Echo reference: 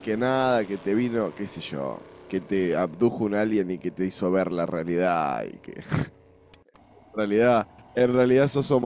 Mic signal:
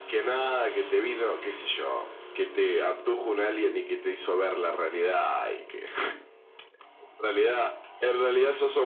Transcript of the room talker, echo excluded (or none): none